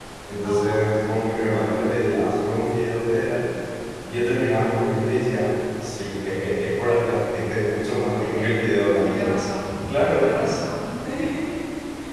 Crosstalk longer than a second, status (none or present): none